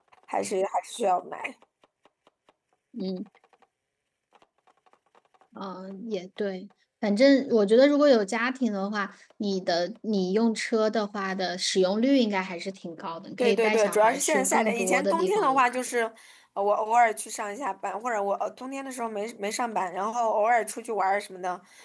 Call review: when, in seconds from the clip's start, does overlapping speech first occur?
13.4 s

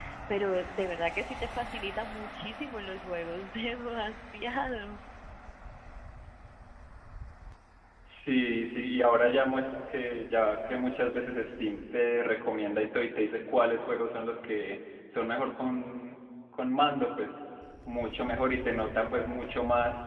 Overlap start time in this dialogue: none

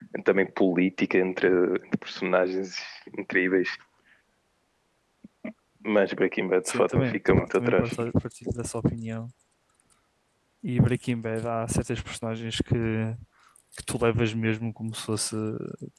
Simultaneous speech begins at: 6.7 s

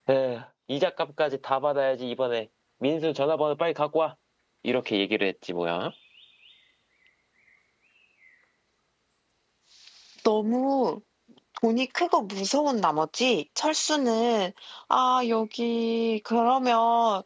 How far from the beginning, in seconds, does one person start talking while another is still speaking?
none

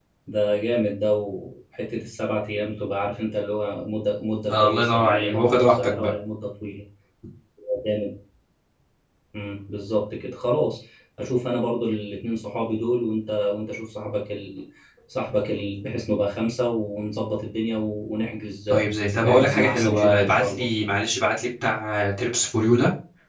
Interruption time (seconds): 4.5 s

